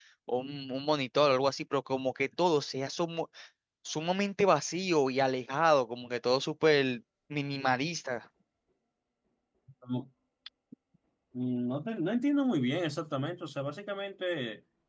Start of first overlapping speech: none

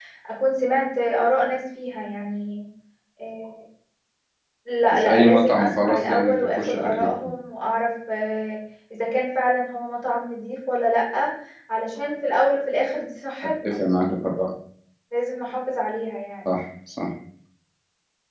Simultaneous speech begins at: 4.9 s

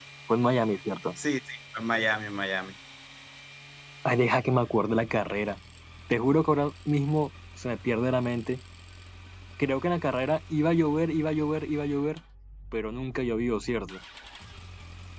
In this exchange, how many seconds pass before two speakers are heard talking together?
none

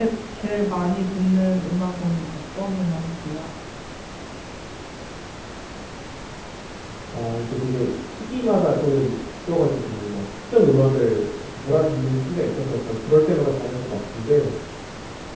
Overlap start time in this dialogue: none

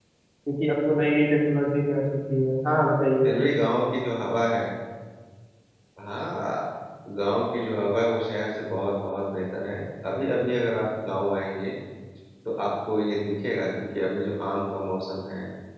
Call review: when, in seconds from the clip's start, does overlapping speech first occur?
none

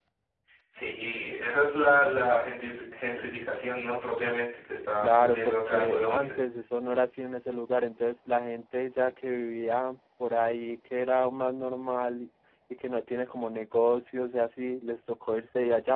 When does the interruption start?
5.0 s

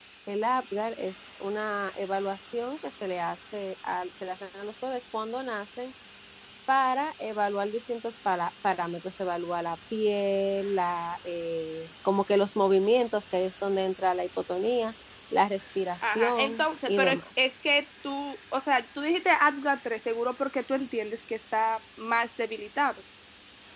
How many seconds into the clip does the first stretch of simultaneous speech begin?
16.0 s

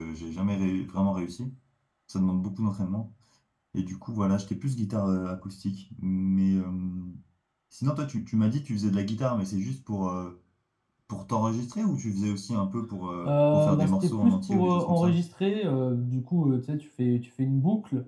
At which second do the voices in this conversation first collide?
13.2 s

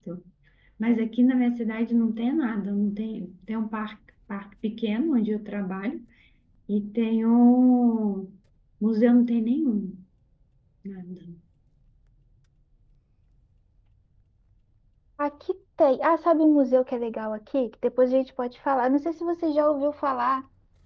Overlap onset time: none

